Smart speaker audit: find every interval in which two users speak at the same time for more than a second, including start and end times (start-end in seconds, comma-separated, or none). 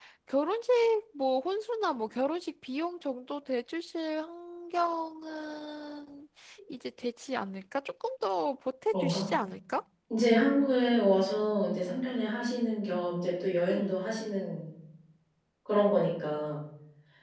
none